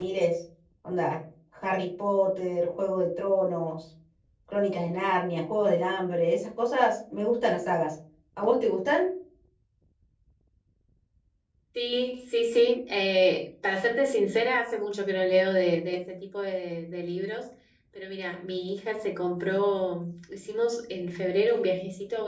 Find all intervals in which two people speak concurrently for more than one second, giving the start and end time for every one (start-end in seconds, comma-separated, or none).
none